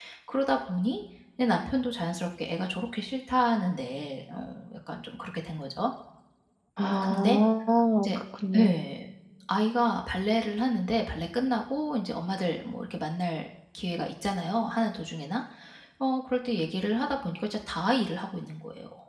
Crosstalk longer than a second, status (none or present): none